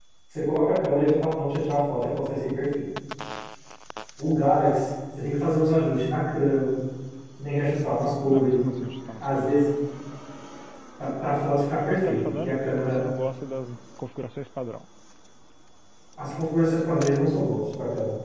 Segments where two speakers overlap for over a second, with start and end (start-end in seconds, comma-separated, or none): 11.7-13.0